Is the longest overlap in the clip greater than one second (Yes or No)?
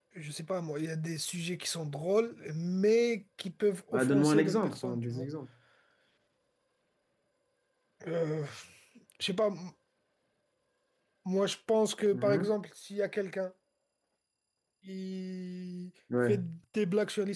Yes